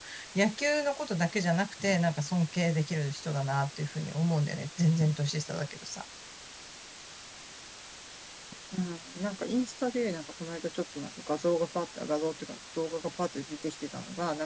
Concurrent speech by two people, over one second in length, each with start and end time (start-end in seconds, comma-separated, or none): none